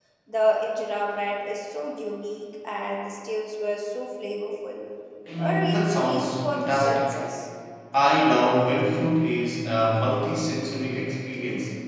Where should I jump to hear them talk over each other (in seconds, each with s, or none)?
5.4 s